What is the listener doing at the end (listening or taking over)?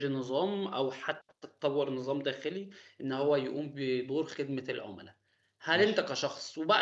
listening